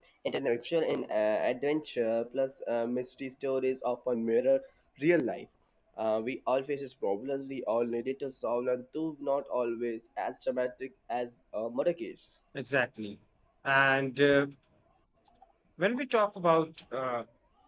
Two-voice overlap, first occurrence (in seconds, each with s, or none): none